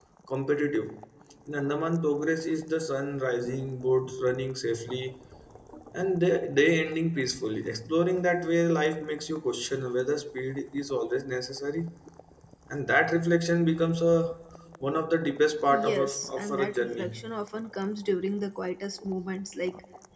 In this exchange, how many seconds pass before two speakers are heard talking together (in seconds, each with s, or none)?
15.7 s